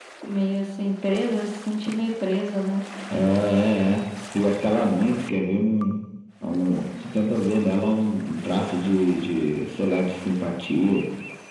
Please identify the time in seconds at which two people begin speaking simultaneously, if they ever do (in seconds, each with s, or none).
none